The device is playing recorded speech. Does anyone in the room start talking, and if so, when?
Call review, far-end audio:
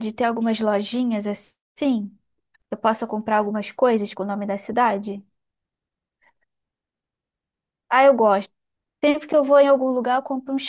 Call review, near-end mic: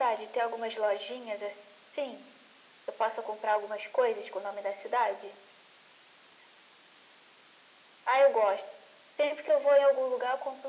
none

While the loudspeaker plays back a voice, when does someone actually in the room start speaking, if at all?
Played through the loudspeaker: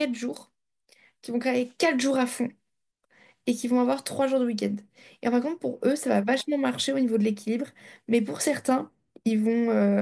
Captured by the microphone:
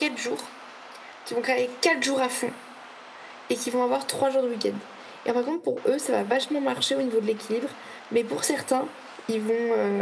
none

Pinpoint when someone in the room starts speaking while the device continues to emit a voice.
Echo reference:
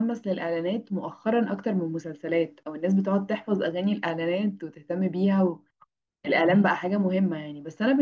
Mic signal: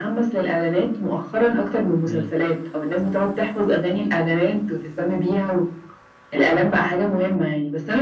2 s

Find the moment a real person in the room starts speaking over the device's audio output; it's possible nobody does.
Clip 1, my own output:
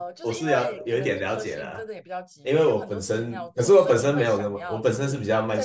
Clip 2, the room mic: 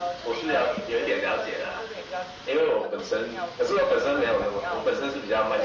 none

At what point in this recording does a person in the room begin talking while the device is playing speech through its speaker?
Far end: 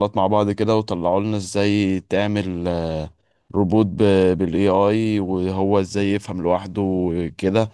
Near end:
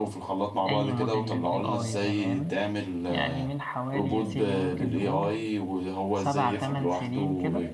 1 s

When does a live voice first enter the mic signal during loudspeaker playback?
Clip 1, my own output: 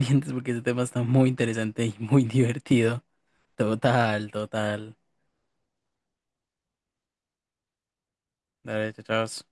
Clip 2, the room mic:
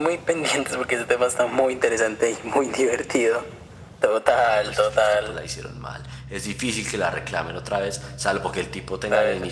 4 s

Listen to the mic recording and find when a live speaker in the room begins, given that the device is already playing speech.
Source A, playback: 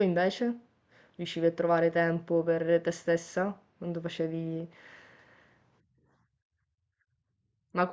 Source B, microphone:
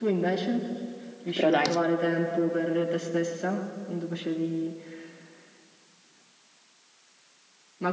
1 s

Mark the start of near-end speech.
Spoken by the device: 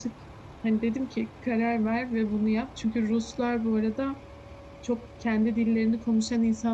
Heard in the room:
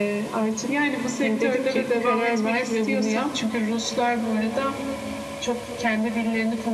1 s

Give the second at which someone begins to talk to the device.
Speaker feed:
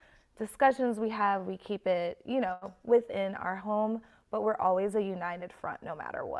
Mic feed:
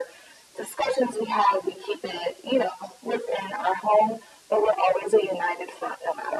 none

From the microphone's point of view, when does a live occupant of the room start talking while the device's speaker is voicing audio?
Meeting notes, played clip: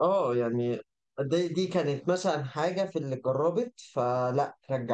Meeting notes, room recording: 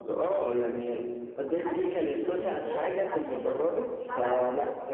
1 s

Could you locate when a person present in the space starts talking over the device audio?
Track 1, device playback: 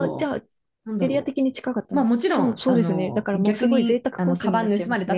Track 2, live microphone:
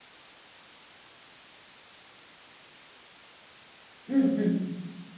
4 s

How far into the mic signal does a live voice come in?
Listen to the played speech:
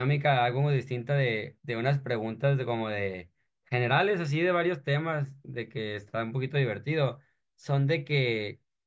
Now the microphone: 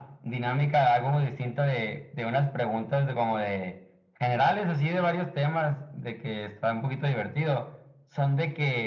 none

